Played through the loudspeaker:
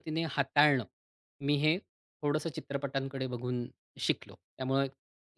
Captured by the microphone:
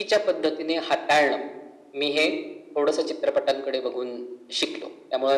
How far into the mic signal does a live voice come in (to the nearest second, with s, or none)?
none